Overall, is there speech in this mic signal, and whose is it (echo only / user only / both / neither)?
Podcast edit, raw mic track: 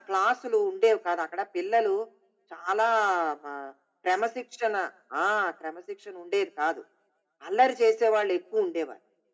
echo only